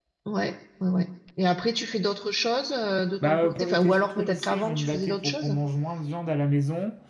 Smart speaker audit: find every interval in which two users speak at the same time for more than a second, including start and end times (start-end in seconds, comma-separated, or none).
3.2-5.6